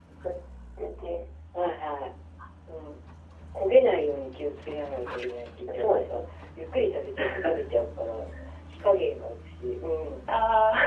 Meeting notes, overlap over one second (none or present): none